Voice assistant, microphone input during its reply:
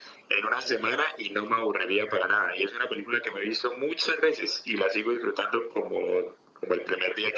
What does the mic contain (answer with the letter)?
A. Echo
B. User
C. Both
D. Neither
A